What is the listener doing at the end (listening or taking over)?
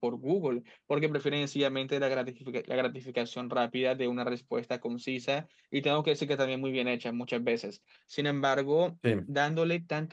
listening